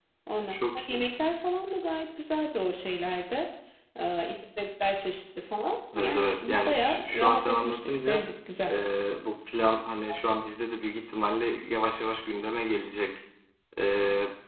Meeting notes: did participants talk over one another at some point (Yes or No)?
Yes